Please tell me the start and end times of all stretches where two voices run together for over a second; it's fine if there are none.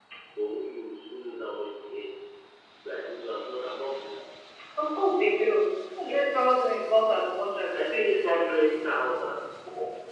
7.8-9.0

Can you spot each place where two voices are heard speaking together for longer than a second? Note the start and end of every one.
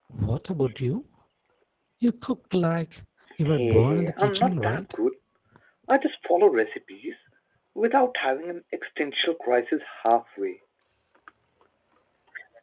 3.5-4.8

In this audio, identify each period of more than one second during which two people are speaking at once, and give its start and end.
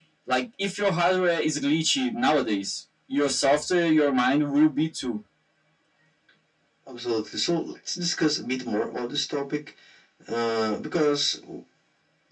none

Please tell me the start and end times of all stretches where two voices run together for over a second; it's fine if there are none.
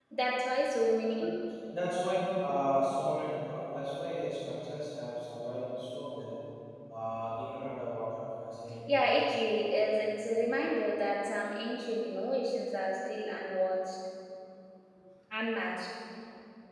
none

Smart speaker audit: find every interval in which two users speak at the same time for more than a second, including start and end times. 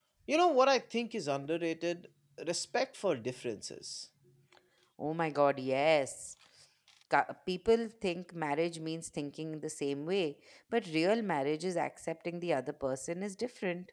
none

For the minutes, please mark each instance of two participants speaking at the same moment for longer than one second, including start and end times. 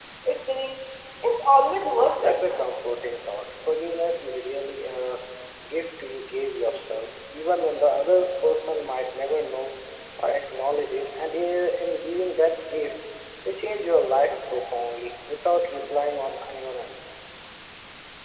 none

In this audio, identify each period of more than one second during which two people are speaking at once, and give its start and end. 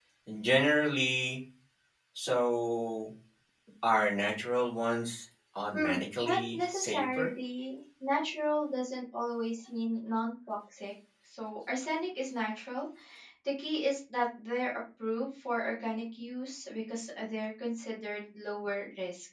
5.8-7.3

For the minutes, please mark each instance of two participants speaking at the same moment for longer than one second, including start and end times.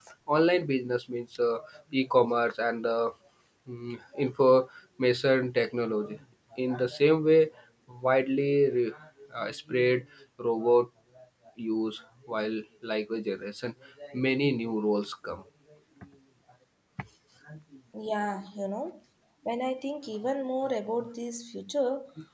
none

